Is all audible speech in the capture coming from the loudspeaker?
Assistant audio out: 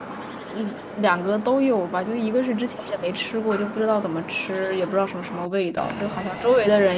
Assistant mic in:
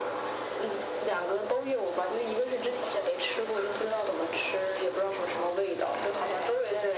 Yes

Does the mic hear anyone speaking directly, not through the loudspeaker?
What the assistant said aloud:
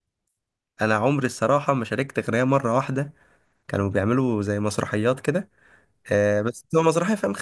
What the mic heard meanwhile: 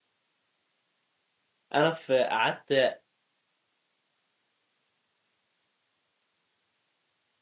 Yes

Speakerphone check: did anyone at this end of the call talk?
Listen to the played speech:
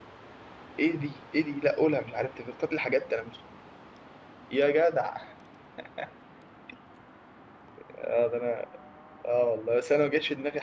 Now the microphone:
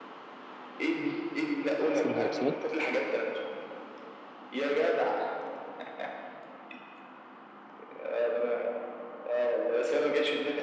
Yes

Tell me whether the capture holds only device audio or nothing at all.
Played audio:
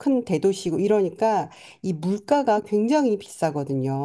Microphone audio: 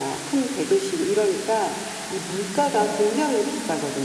Yes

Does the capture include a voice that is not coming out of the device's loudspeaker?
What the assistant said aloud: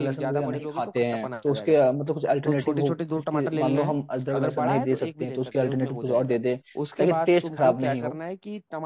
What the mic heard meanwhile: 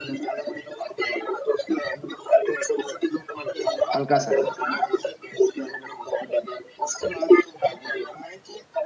Yes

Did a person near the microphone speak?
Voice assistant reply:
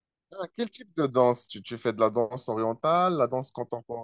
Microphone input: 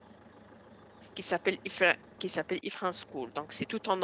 Yes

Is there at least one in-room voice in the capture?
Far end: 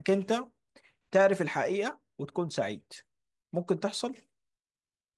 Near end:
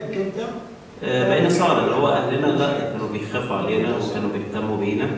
Yes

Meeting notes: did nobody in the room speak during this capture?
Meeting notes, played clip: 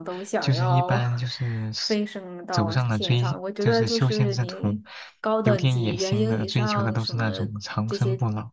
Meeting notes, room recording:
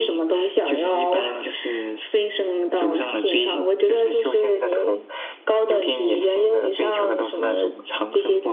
Yes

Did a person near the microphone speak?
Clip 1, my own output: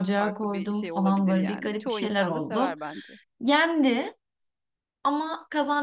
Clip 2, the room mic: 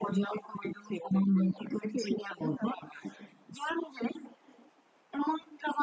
No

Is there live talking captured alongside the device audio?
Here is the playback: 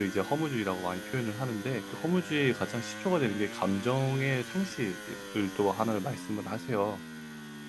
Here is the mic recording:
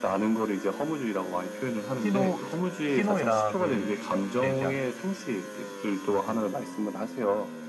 Yes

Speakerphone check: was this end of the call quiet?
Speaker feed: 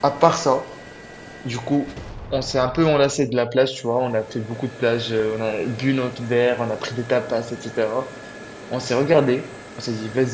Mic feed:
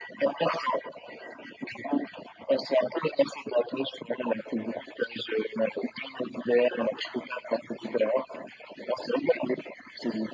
Yes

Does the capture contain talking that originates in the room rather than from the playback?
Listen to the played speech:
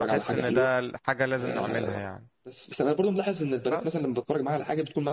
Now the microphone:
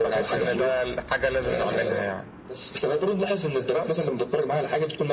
No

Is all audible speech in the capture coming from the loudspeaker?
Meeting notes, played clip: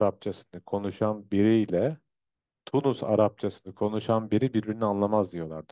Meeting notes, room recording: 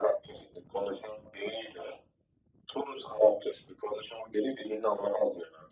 Yes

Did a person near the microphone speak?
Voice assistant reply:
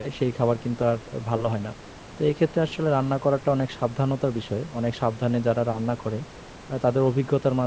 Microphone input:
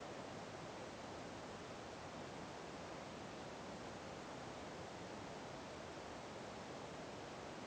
No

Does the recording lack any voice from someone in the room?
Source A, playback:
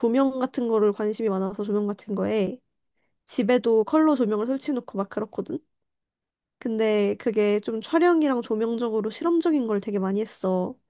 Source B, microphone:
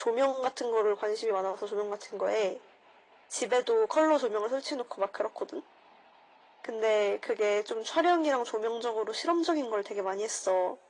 Yes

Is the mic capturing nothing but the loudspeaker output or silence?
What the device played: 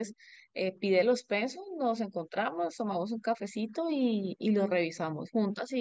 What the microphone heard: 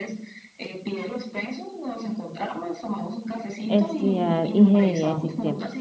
No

